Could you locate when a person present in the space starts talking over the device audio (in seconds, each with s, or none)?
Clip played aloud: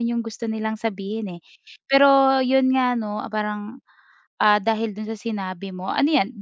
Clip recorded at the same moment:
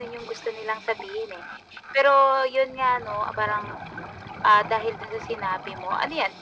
none